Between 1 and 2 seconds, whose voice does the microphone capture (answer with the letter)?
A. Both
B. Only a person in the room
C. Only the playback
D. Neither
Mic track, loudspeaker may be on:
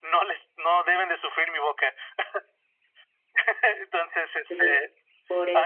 C